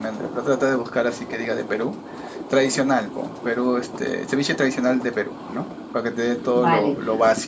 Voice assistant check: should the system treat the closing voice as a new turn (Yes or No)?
Yes